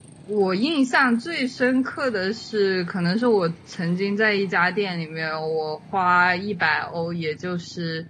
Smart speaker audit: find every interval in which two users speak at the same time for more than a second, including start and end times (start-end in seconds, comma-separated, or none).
none